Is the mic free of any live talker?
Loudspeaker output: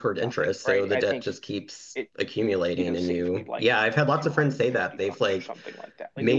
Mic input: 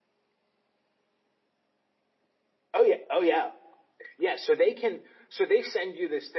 No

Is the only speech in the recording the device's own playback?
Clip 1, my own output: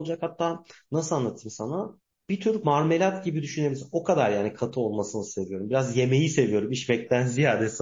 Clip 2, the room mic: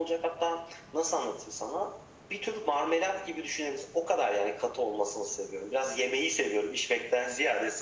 Yes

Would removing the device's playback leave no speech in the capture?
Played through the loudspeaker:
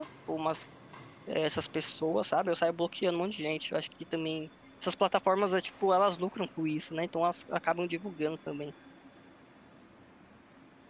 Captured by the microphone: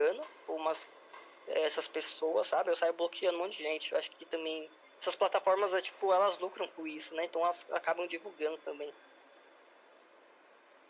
Yes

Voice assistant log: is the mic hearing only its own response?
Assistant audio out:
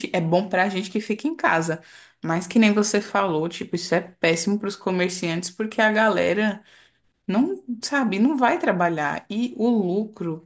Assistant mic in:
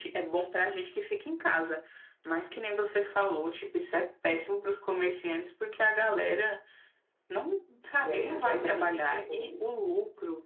No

